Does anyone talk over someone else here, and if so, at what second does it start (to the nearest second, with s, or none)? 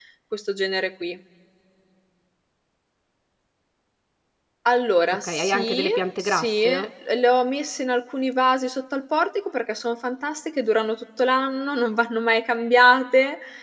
5 s